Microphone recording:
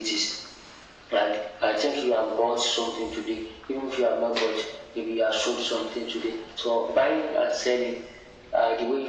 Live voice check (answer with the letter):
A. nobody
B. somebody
A